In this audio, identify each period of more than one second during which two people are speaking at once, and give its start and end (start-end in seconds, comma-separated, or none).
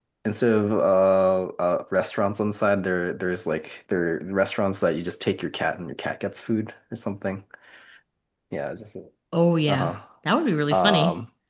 none